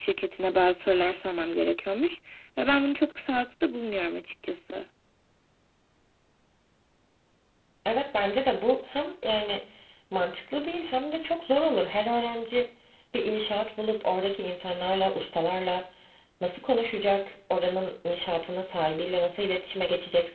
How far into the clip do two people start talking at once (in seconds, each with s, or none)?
none